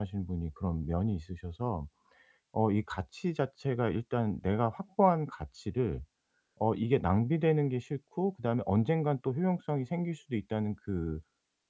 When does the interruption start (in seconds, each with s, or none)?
none